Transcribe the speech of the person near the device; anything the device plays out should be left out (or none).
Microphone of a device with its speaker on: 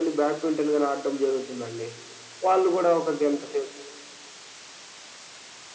none